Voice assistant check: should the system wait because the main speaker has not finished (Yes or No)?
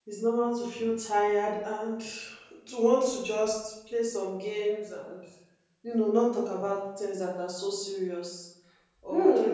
No